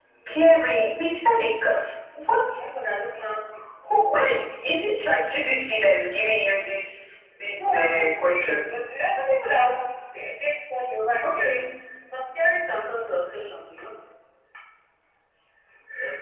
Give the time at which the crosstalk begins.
7.6 s

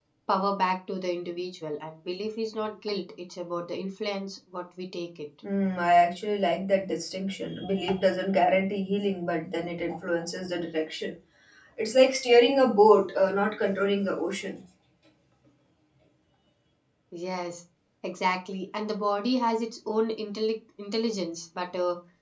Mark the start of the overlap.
none

